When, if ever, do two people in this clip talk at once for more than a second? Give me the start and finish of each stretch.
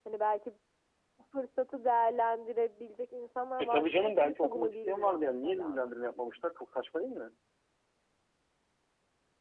3.6-5.8

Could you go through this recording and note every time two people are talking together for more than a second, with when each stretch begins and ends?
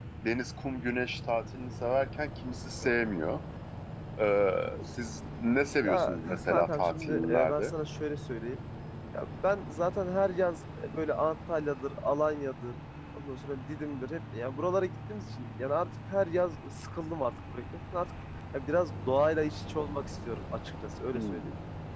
5.8-7.7

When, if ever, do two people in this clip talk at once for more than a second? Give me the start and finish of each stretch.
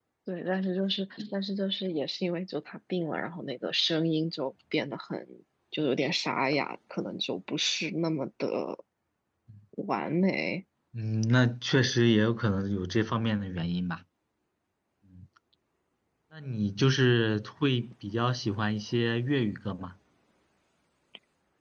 none

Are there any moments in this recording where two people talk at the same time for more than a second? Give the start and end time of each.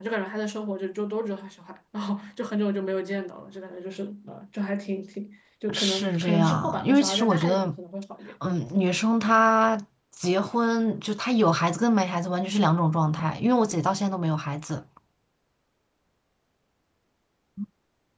5.7-7.7

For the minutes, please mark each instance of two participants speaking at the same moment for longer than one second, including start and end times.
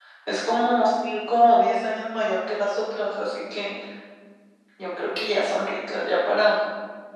none

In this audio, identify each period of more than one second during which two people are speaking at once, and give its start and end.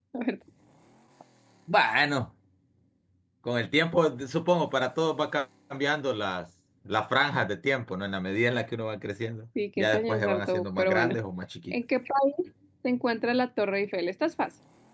9.8-11.2

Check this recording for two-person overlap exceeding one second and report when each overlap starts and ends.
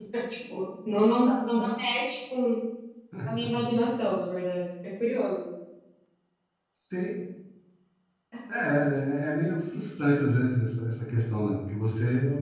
none

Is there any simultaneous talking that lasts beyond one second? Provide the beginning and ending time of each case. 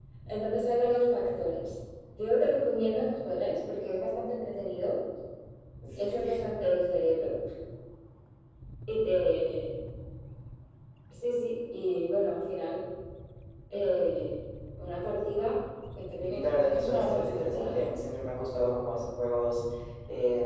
16.2-18.0

